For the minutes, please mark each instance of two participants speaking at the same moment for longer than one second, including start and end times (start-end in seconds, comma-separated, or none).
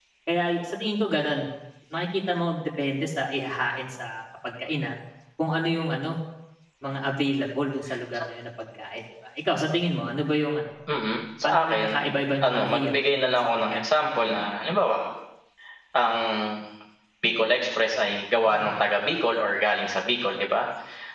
12.4-13.8